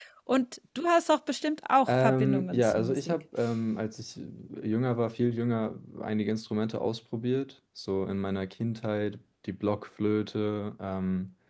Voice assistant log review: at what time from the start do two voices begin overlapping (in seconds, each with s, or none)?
1.9 s